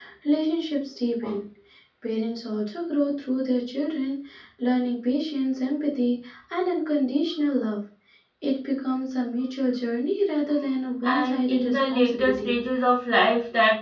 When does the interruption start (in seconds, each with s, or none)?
11.0 s